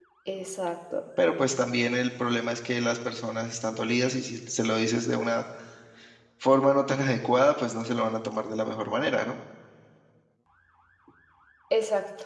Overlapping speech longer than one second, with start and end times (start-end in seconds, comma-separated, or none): none